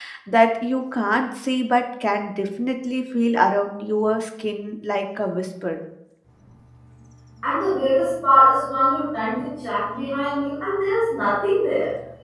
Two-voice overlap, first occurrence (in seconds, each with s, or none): none